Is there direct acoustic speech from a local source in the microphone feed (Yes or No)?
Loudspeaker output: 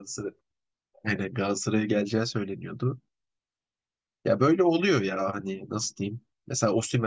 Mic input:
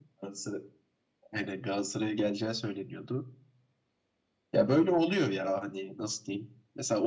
No